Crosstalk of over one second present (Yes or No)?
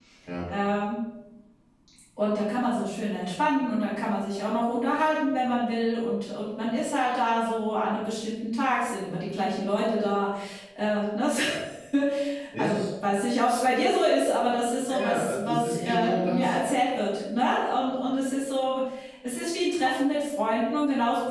Yes